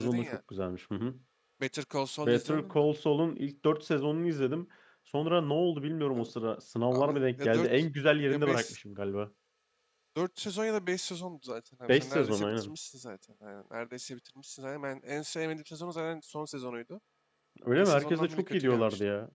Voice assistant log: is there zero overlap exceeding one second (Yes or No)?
No